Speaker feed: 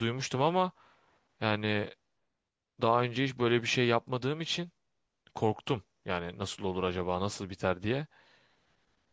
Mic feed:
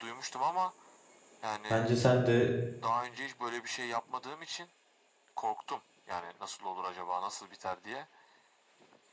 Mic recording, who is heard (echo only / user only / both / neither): both